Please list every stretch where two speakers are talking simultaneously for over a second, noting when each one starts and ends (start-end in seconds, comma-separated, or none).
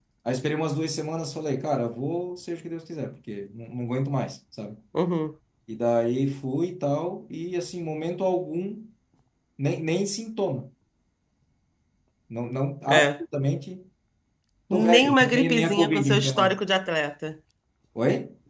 14.7-16.6